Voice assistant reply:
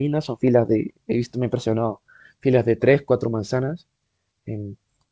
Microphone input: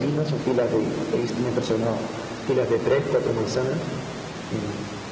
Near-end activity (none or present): none